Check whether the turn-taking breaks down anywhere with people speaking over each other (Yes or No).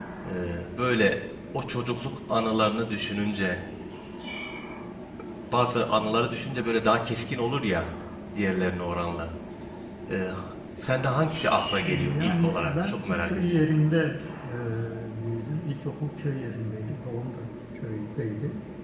Yes